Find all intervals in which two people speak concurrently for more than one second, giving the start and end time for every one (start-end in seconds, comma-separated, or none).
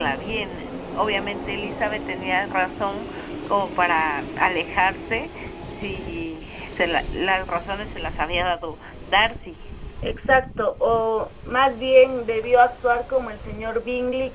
none